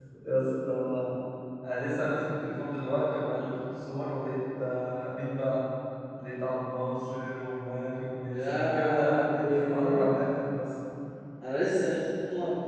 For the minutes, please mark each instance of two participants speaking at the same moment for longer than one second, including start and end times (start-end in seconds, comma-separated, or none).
8.3-10.1